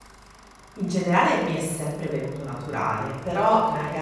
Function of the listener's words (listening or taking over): listening